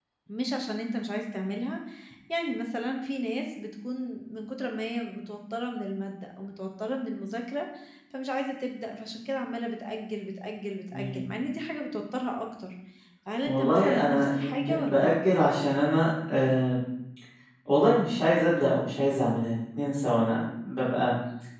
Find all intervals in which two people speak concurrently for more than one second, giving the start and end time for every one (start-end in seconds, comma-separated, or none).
13.4-15.1